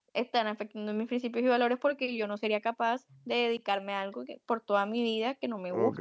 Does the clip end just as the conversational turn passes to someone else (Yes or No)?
Yes